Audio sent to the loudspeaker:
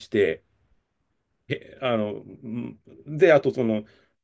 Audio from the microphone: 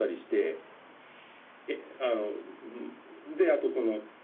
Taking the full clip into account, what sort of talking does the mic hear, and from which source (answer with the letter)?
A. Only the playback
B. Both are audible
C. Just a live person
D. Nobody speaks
A